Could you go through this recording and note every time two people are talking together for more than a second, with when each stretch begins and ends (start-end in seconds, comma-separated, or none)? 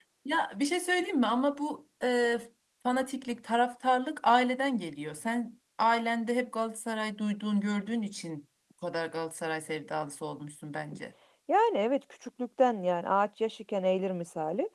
none